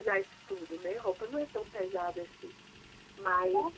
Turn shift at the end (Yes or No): No